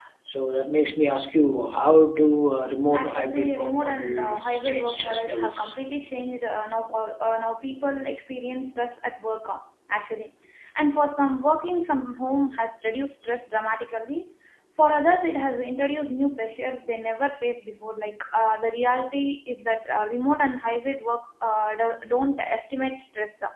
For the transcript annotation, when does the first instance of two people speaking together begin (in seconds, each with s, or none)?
2.9 s